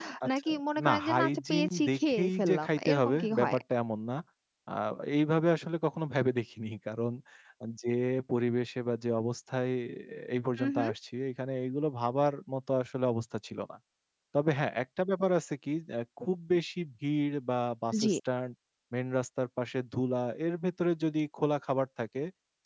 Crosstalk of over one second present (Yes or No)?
Yes